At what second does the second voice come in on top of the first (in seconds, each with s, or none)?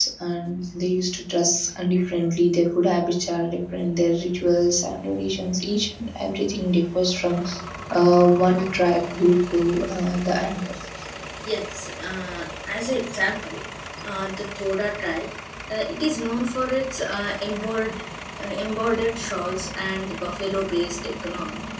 none